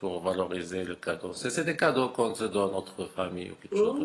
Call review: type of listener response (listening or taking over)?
taking over